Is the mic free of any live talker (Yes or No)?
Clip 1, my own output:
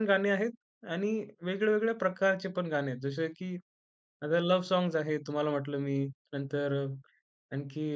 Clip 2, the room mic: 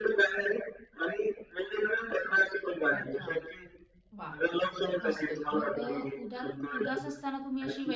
No